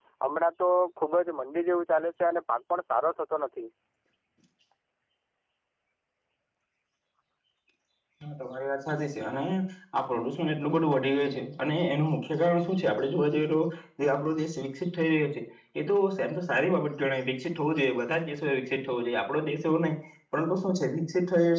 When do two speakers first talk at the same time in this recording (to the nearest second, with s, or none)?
none